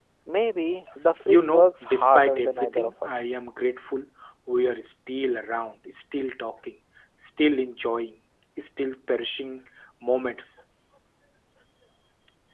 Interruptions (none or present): present